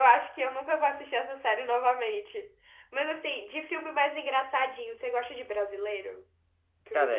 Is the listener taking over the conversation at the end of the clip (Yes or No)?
Yes